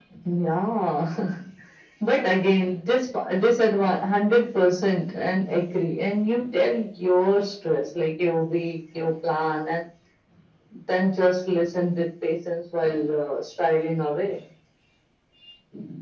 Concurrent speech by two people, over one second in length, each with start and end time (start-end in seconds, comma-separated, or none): none